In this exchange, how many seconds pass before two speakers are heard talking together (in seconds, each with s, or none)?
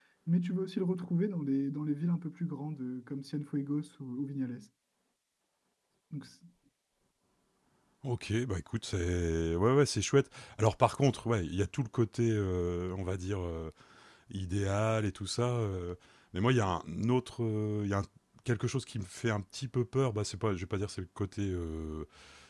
none